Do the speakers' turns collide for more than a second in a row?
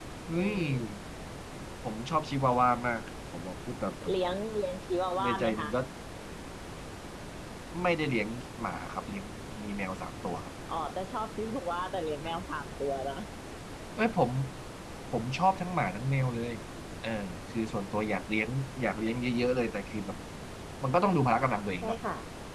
No

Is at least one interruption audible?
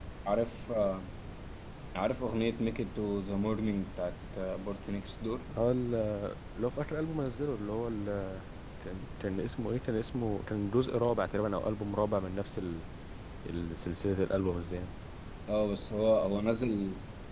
No

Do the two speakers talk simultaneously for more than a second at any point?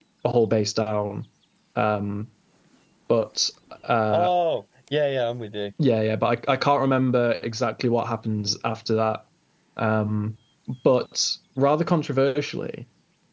No

